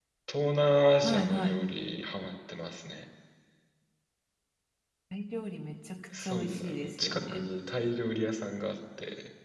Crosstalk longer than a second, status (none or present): present